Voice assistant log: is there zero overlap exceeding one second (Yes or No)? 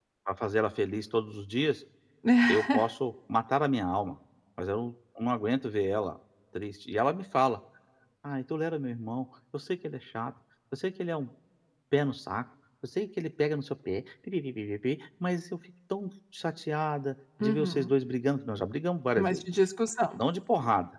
Yes